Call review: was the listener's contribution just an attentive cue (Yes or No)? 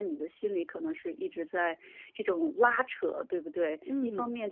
Yes